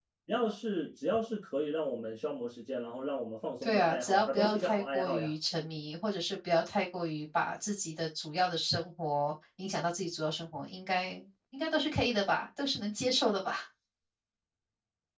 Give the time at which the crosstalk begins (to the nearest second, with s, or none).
4 s